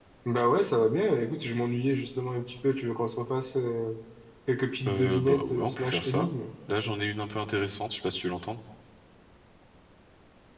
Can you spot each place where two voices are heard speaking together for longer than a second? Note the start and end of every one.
4.9-6.3

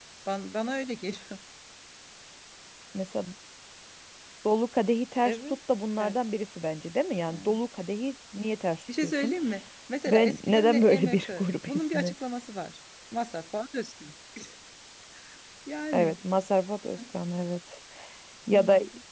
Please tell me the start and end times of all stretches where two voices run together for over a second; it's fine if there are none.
10.1-12.1

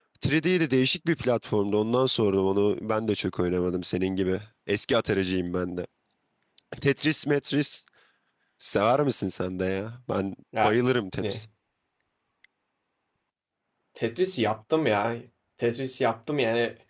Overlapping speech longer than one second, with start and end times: none

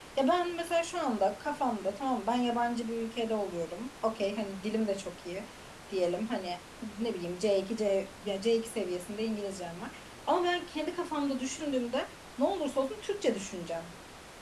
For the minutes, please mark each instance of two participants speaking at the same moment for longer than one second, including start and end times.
none

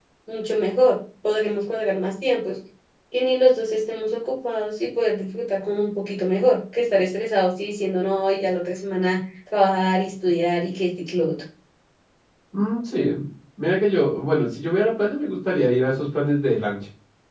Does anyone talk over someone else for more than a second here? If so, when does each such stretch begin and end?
none

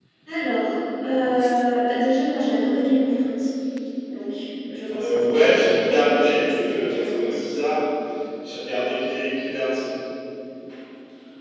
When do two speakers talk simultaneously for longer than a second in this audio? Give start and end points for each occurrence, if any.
4.9-7.3

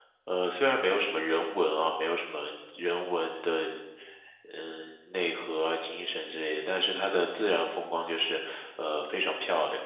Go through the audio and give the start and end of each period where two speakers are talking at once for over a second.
none

